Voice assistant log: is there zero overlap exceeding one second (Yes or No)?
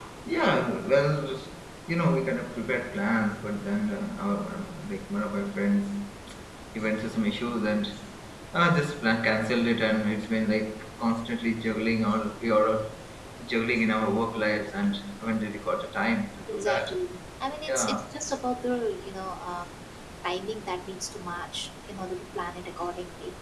Yes